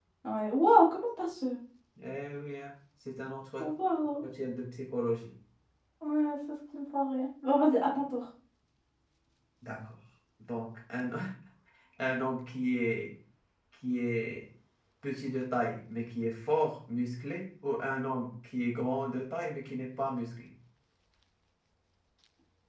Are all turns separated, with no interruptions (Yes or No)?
Yes